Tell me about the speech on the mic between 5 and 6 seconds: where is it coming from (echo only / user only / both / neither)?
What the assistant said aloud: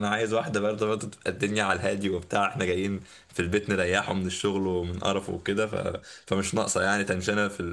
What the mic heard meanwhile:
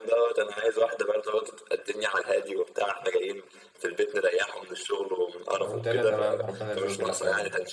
both